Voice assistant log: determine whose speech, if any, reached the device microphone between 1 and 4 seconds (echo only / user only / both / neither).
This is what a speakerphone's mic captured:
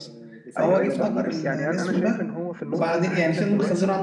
both